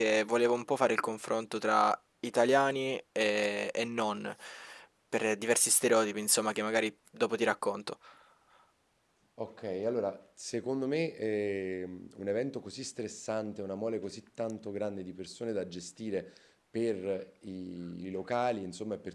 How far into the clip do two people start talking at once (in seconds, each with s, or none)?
none